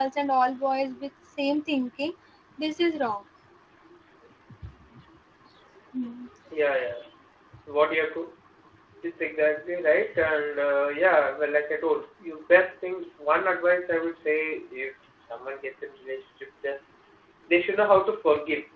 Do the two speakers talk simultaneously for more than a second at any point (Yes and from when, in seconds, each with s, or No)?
No